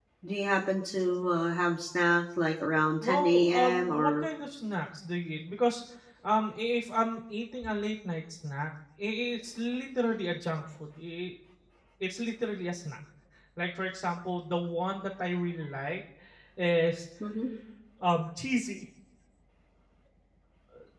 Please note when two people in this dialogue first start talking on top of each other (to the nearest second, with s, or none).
3 s